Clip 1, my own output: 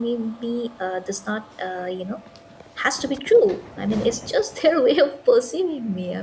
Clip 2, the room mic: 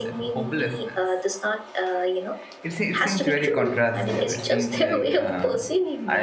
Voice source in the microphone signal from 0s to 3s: both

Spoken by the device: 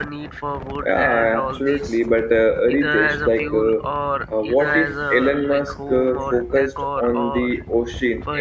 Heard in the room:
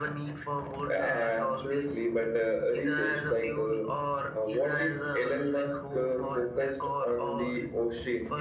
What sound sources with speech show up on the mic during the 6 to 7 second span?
echo only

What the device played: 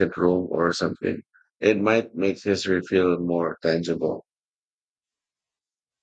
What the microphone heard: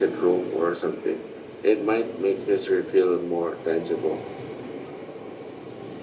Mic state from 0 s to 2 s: echo only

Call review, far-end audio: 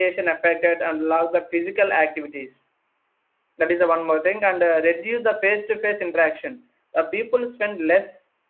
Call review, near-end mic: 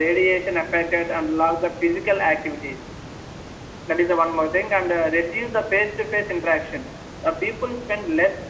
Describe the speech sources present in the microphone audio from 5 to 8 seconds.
echo only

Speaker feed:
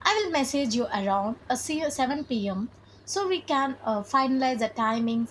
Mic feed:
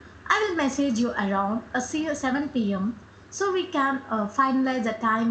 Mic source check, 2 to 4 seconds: echo only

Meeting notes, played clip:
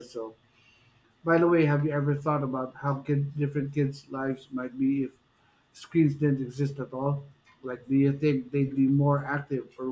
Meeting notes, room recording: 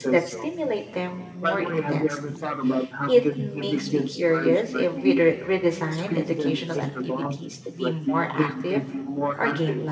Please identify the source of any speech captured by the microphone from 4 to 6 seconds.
both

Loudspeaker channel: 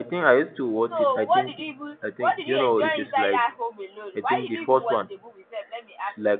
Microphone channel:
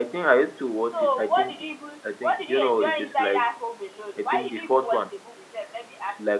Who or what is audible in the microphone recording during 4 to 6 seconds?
echo only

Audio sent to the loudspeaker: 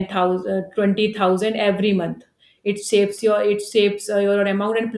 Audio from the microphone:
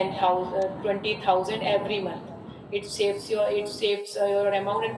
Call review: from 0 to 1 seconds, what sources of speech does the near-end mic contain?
echo only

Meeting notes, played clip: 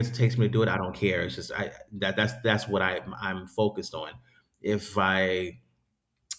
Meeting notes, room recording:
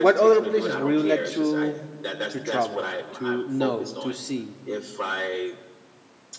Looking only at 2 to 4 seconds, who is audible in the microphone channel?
both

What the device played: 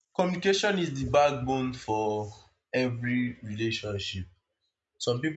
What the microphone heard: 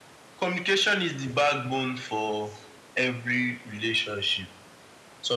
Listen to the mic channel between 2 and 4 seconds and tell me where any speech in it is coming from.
echo only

